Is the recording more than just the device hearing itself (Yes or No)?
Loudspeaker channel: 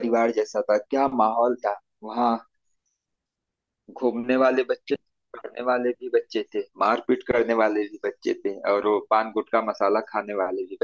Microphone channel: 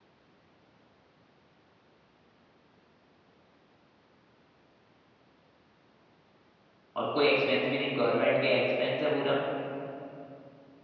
Yes